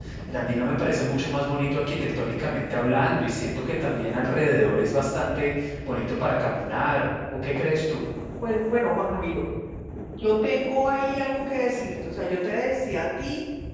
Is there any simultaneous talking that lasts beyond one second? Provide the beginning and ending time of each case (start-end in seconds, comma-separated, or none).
none